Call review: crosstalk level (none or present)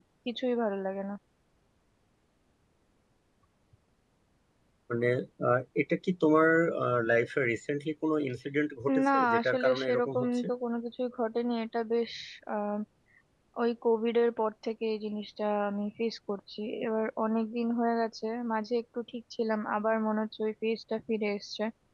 present